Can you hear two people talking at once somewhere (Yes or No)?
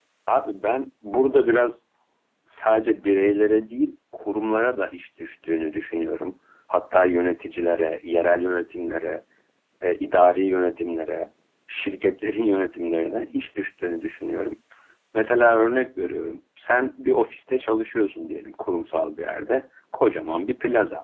No